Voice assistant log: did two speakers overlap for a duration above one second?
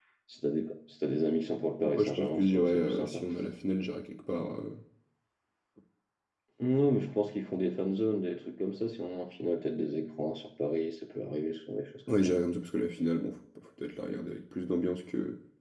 Yes, from 1.8 s

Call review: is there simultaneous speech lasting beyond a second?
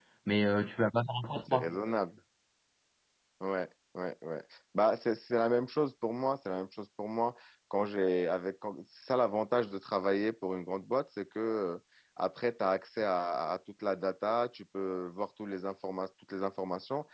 No

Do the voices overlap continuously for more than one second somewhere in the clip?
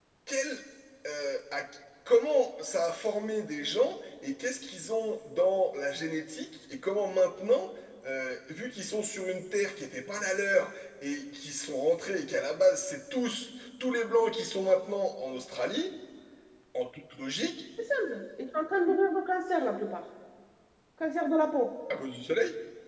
No

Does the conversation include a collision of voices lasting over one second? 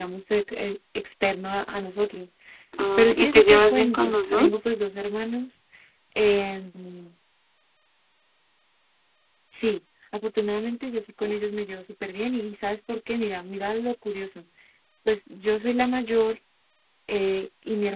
Yes, from 3.0 s

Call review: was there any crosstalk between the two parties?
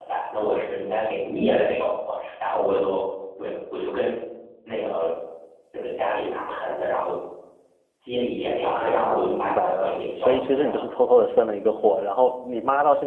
Yes, from 8.7 s

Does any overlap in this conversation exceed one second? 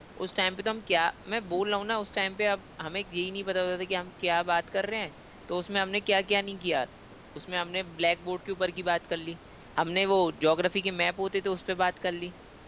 No

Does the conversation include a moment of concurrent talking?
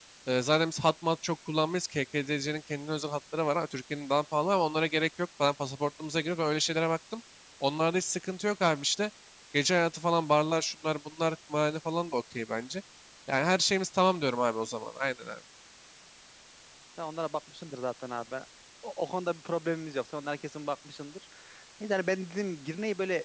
No

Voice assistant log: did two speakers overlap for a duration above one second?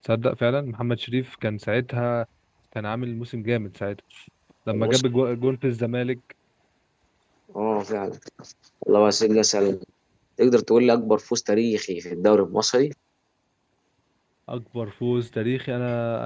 No

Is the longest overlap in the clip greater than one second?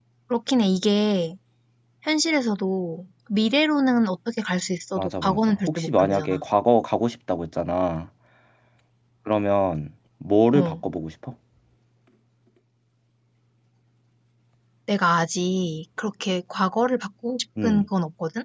Yes, from 5.0 s

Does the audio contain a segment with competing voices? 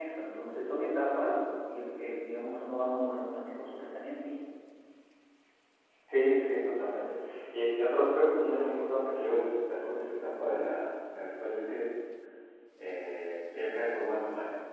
No

